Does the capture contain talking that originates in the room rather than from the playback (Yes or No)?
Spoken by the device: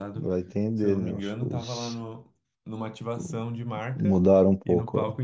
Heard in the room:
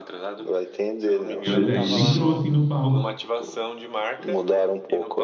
Yes